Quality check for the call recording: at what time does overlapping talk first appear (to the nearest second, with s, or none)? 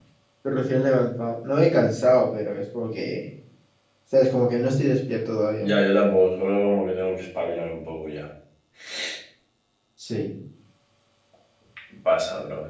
none